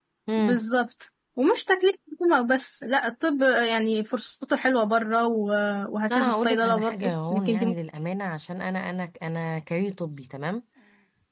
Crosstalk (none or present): present